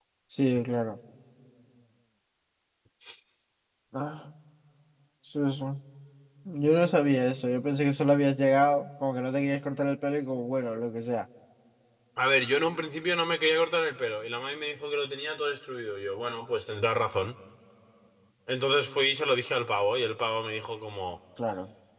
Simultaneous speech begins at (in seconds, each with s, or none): none